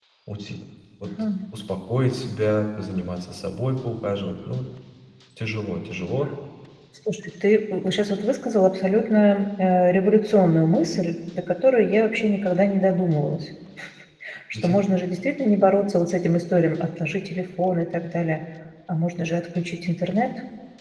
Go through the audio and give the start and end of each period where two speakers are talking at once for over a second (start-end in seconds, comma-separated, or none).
none